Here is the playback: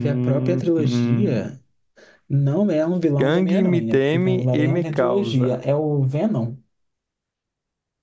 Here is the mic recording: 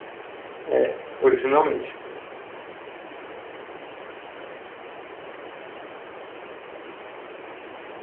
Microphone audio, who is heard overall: user only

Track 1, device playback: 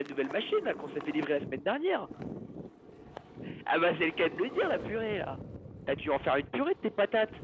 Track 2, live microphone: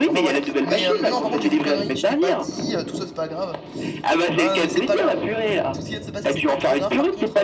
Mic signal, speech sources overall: both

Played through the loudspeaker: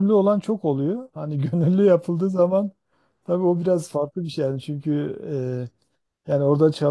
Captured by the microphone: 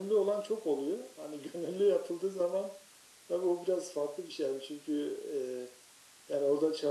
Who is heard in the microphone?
echo only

